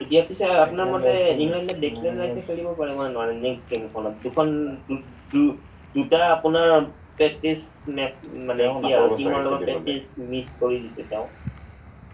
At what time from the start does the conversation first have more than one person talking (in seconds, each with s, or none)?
0.7 s